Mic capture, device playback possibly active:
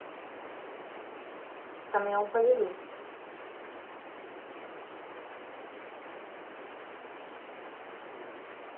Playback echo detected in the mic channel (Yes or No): No